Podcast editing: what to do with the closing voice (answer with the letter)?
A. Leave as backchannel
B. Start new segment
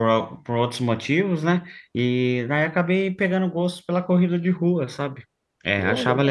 A